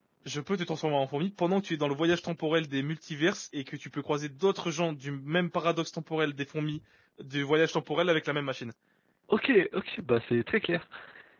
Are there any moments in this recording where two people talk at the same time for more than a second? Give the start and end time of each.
none

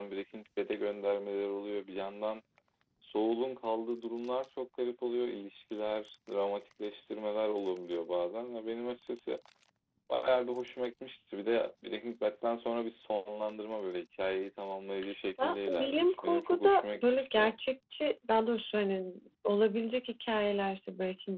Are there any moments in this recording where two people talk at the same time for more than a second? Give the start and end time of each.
15.4-17.6

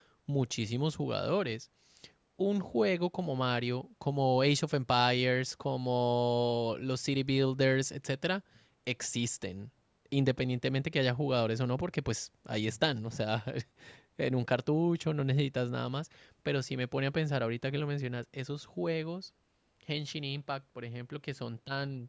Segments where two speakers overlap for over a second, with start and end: none

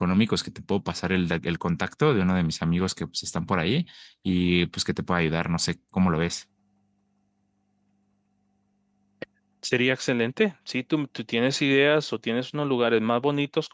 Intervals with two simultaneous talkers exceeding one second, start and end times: none

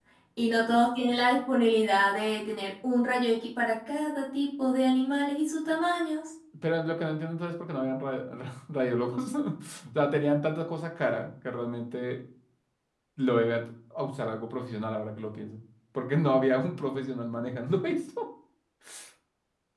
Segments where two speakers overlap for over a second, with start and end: none

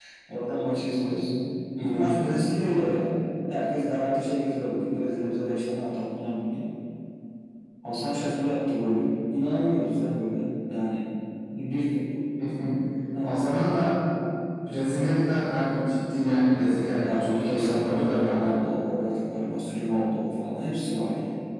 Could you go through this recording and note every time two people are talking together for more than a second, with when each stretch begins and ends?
17.0-18.5

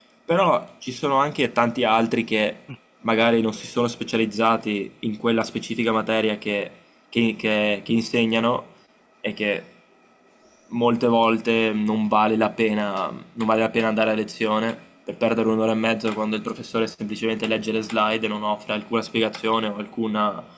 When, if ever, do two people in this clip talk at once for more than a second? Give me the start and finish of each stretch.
none

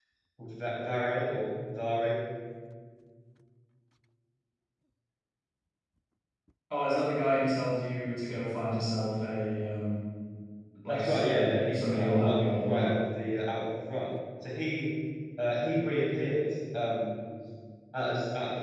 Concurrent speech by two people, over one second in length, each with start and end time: 10.9-12.9

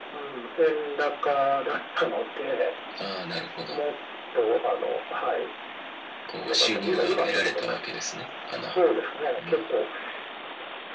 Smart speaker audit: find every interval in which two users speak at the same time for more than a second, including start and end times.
6.4-7.8

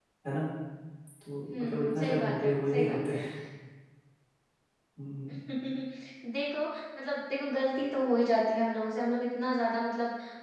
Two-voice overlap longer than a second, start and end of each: 1.5-3.1

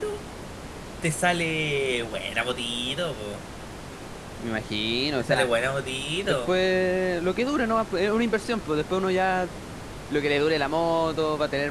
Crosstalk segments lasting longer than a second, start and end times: none

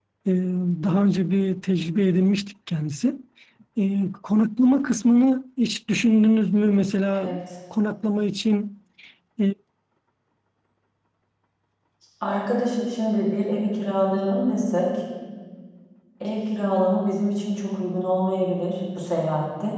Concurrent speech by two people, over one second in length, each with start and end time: none

